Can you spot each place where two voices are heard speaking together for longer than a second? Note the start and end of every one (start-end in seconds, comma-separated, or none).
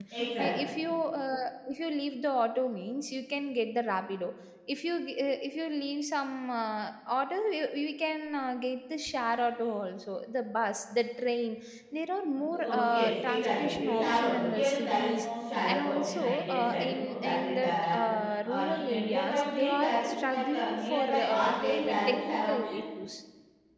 12.5-15.3, 15.7-18.0, 18.4-22.8